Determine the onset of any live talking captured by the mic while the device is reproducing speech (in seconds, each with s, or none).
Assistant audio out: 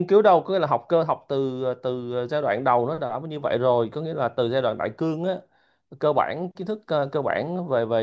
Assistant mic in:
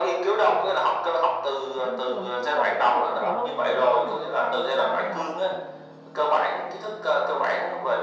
1.7 s